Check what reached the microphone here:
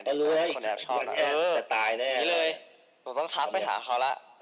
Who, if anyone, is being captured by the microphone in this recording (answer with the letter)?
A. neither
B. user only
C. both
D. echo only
D